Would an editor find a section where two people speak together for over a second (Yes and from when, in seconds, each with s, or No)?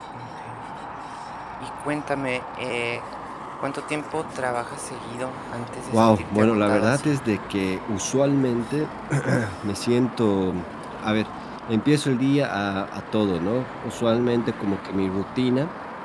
Yes, from 5.9 s